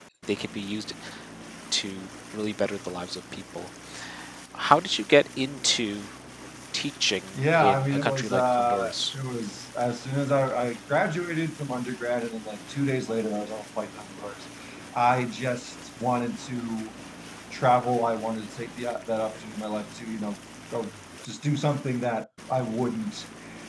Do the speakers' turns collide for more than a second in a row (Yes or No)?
Yes